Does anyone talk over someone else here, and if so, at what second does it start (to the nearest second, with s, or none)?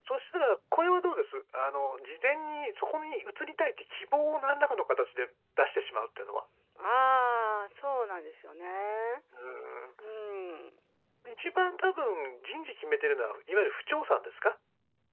none